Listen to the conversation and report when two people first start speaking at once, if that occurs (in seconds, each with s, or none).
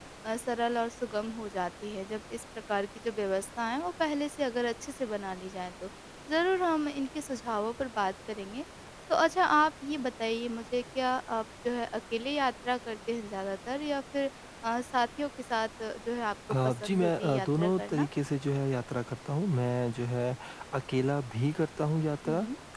16.5 s